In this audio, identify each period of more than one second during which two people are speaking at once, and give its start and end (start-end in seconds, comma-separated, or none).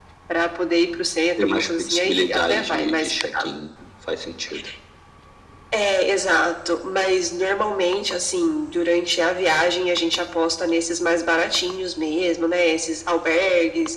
1.4-3.1